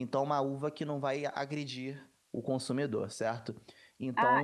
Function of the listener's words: taking over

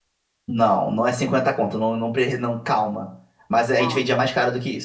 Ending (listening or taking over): listening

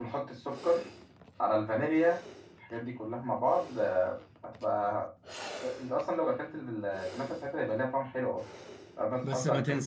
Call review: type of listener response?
taking over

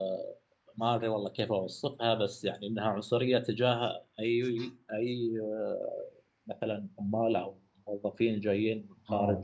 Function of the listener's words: taking over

